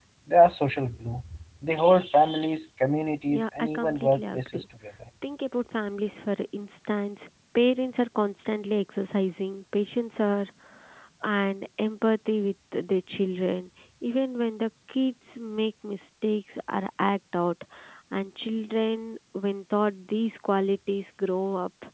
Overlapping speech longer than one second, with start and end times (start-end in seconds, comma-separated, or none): 3.3-4.6